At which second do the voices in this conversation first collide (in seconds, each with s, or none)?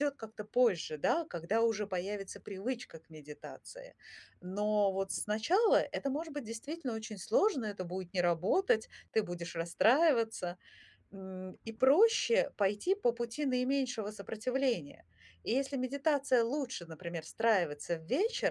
none